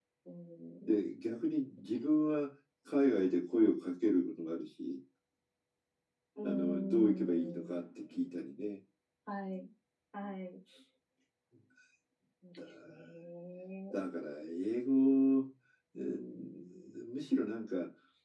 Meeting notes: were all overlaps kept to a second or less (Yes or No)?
No